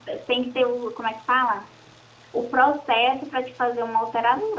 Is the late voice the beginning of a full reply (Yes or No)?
Yes